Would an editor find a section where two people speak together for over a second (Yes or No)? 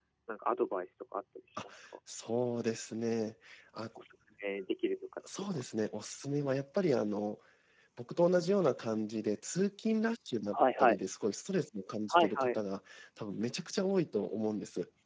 No